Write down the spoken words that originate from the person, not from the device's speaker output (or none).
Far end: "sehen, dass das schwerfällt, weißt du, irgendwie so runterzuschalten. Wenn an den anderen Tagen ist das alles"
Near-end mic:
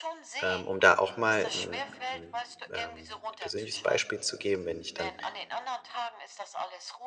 ähm, um da auch mal 'n 'n, ähm, persönliches Beispiel zu geben. Wenn ich dann